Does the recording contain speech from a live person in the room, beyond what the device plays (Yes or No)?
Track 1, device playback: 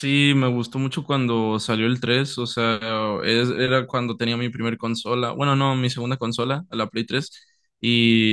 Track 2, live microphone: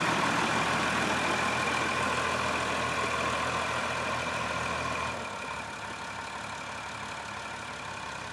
No